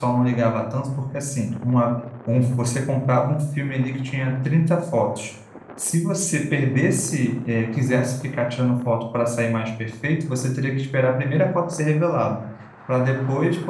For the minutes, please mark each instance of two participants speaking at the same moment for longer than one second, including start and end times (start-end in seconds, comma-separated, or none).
none